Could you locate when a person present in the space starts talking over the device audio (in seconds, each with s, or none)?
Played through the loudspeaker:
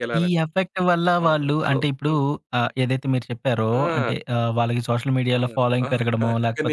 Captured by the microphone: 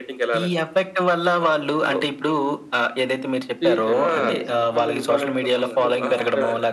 3.6 s